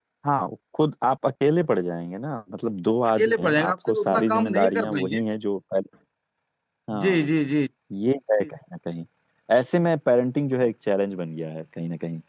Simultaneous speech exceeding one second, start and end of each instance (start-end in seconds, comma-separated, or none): 3.1-5.2